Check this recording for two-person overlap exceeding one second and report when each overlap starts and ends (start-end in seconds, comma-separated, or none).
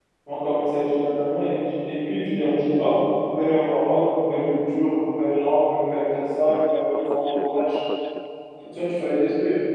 6.5-7.8